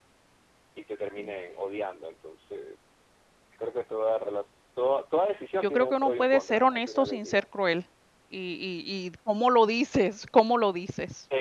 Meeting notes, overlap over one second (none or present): present